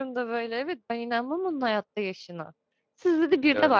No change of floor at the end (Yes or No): Yes